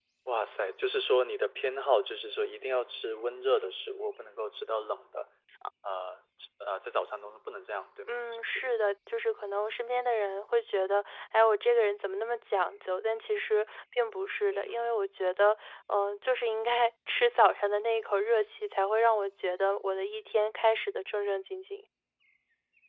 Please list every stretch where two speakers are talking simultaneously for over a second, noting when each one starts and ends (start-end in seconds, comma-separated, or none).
none